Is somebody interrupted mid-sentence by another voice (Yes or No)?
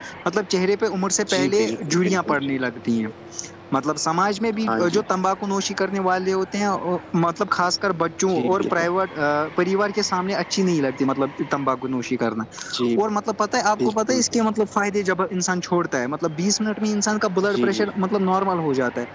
Yes